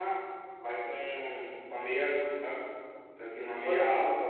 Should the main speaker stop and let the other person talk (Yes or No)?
No